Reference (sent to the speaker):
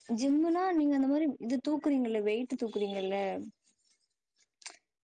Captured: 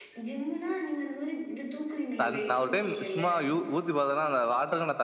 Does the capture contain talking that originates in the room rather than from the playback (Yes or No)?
Yes